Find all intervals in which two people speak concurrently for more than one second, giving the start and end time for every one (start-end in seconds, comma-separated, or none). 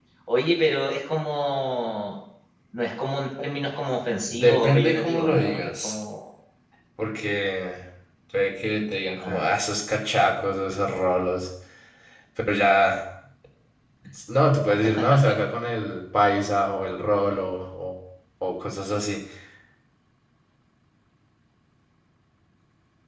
4.3-6.0